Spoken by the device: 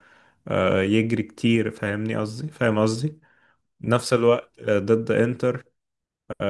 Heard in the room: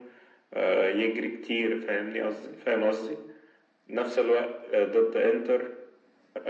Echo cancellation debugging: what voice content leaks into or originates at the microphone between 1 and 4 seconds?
echo only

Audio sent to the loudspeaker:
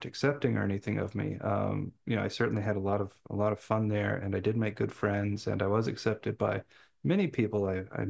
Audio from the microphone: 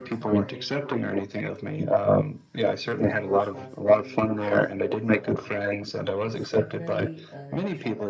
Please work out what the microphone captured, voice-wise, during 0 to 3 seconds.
both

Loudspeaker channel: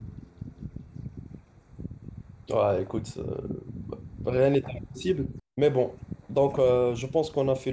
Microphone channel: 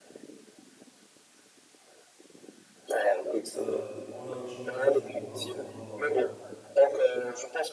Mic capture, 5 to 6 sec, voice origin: both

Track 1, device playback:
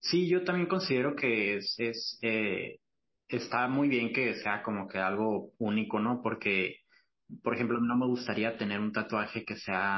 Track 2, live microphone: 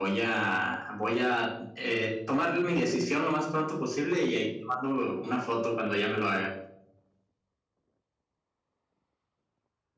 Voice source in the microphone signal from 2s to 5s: user only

